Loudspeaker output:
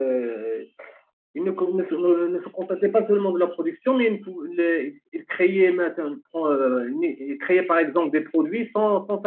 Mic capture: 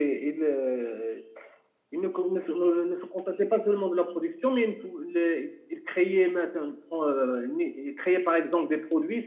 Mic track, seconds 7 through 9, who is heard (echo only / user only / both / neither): echo only